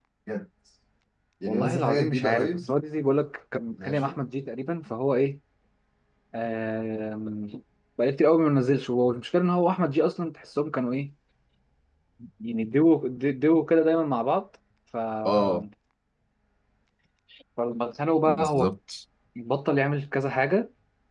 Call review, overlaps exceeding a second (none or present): present